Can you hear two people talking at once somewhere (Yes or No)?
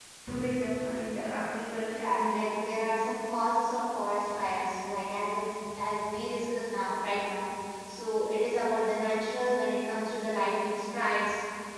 Yes